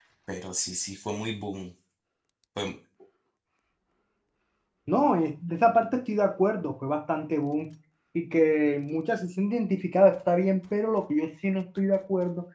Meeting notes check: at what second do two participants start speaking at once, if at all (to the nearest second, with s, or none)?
none